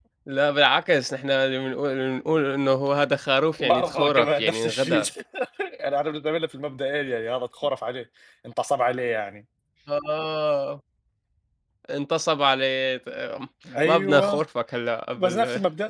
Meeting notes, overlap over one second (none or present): present